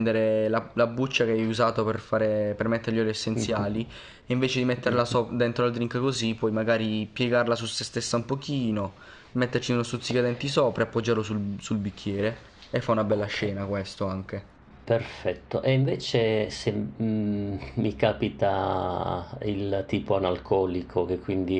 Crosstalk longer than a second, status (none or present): none